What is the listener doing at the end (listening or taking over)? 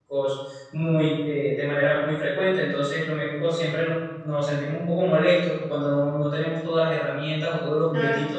listening